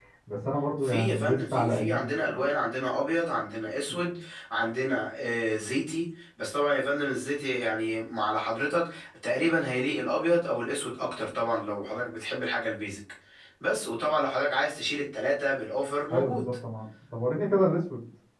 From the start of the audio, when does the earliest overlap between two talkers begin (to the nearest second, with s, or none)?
1 s